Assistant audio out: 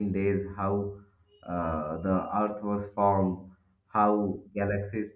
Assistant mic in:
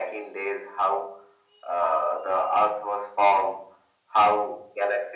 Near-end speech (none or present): none